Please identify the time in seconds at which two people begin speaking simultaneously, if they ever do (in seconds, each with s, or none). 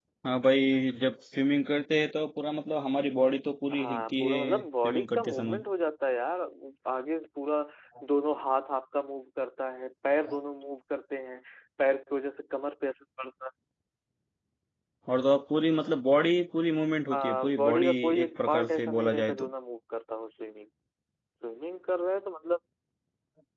3.8 s